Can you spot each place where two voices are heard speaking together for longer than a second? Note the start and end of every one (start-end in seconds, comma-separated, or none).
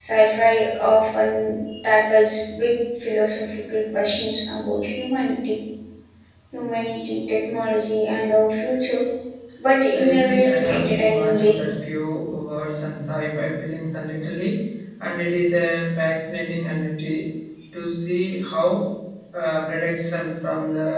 9.9-11.6